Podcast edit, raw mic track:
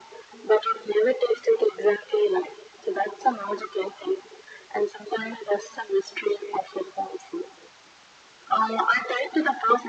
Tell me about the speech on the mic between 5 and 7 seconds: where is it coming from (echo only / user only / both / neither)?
echo only